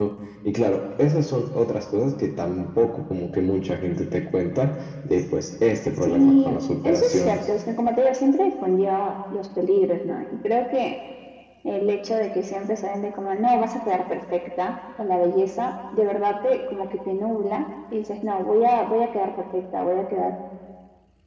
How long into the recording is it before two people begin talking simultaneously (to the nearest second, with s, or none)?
6 s